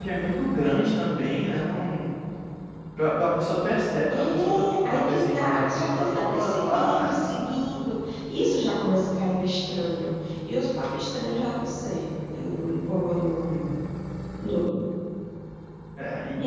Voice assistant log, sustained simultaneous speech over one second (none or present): present